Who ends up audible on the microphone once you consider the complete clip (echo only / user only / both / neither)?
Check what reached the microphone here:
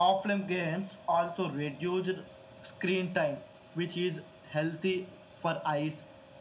echo only